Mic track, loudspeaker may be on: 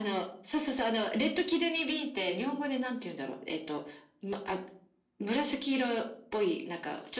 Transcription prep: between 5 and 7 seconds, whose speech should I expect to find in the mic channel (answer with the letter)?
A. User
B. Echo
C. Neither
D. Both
B